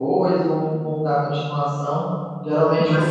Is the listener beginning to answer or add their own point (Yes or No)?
No